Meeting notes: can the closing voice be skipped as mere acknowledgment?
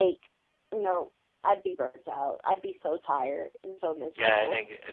No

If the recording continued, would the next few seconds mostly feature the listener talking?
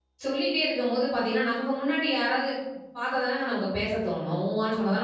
Yes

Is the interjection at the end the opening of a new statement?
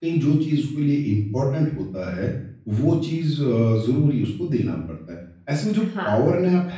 No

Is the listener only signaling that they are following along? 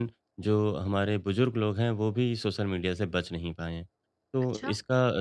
Yes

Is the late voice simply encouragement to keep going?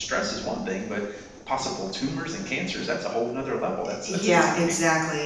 No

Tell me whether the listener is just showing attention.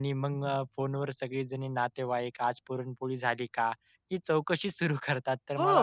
Yes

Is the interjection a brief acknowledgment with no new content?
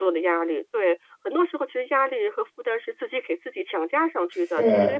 Yes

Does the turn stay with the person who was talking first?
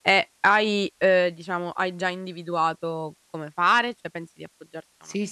No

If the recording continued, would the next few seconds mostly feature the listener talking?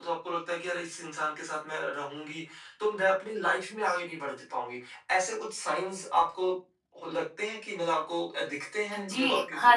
Yes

